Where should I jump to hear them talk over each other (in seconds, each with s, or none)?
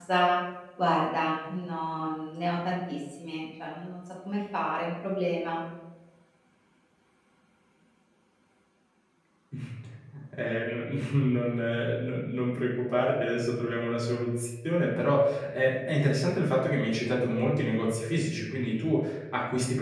none